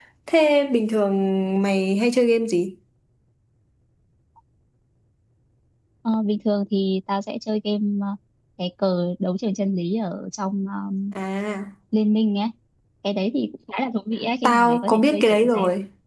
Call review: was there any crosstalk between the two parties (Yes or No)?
Yes